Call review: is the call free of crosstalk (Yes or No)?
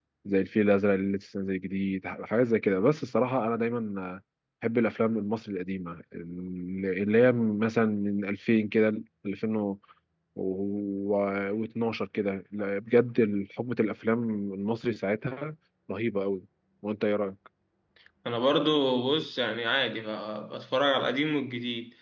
Yes